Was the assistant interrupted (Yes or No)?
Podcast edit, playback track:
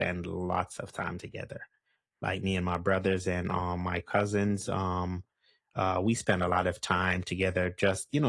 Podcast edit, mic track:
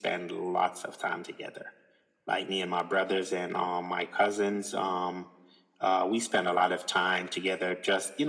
No